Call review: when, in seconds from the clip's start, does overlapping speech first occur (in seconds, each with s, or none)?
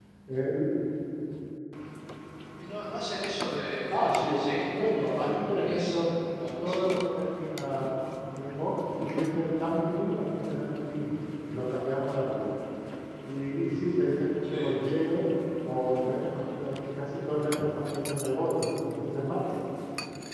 3.9 s